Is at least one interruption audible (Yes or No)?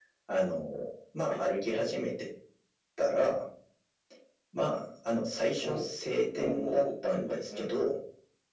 Yes